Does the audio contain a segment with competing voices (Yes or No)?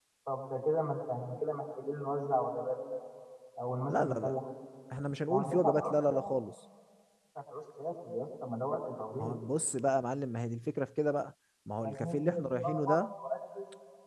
Yes